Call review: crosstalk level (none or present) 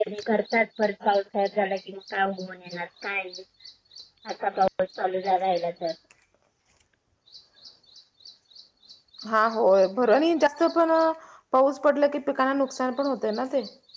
none